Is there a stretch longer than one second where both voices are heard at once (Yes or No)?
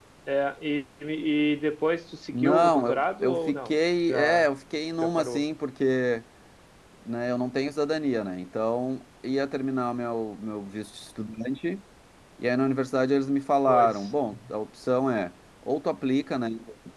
Yes